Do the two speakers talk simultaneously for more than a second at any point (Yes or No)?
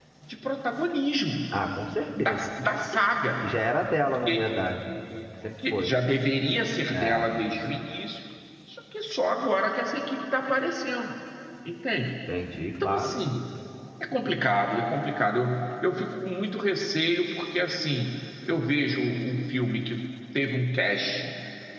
No